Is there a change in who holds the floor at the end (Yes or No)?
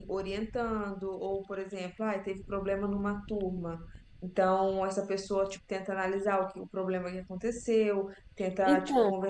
No